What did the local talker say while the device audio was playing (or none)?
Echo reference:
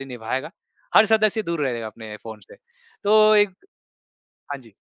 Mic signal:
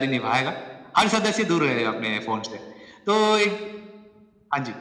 none